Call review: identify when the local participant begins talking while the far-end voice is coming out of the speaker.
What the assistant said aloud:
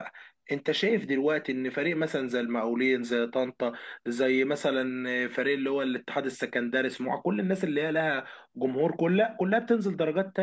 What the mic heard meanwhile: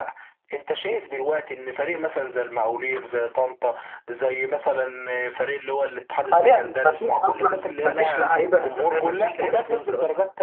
6.3 s

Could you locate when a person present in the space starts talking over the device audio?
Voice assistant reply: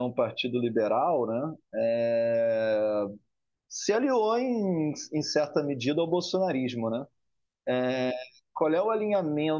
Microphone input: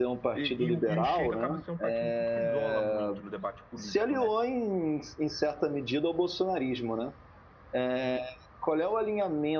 0.3 s

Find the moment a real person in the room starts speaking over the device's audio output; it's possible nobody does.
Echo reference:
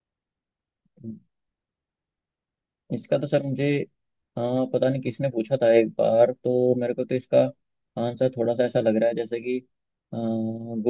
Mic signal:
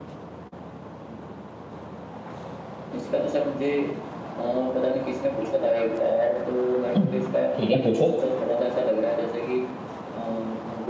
7.0 s

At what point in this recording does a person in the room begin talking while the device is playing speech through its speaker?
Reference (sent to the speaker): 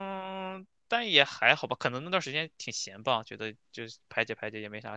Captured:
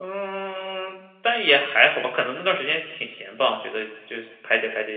none

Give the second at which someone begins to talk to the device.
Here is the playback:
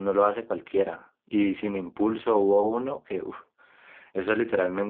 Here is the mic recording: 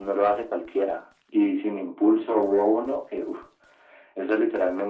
none

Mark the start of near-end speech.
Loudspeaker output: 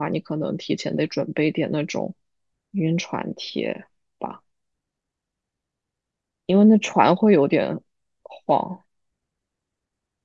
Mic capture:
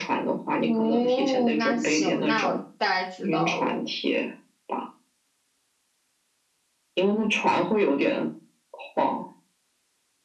0.6 s

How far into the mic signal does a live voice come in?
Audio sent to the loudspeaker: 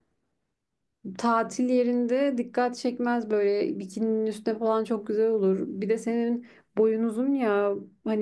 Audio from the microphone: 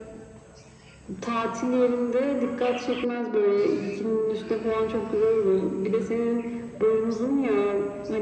none

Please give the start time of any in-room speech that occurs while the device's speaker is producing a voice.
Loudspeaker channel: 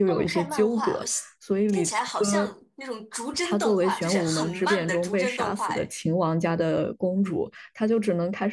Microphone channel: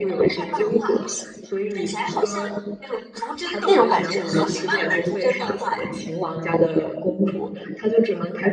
3.6 s

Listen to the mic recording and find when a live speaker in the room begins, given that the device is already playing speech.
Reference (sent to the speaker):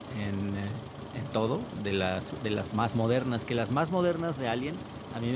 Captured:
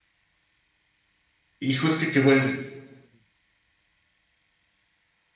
1.6 s

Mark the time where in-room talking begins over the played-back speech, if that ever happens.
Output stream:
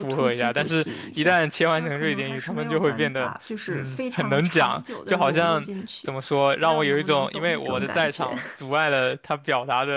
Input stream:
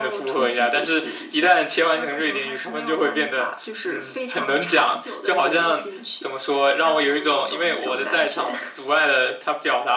none

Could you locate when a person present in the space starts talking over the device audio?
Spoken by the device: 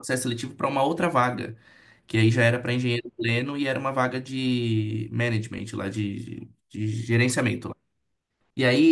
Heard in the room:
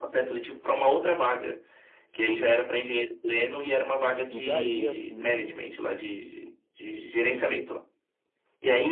4.2 s

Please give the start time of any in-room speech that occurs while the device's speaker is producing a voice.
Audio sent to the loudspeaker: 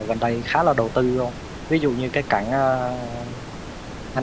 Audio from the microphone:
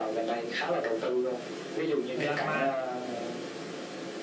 2.1 s

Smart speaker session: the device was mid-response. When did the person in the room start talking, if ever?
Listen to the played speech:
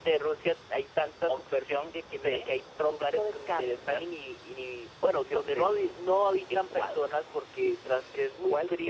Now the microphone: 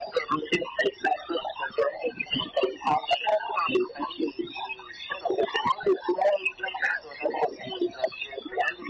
none

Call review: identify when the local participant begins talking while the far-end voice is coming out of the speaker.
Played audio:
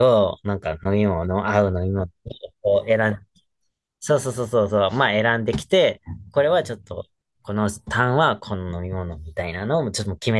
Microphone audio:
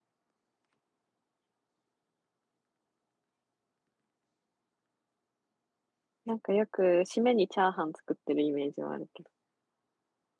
6.2 s

